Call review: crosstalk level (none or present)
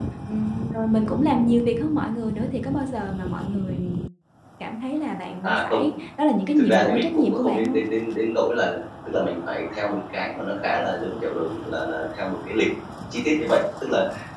present